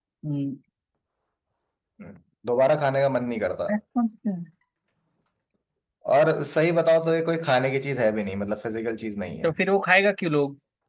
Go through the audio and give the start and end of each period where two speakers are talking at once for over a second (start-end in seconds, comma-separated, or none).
none